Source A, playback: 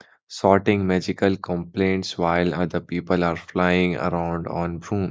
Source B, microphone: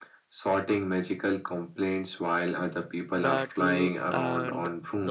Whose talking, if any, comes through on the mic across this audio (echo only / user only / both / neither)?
both